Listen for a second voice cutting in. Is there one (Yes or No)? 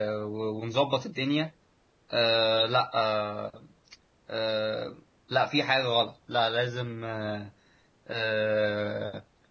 No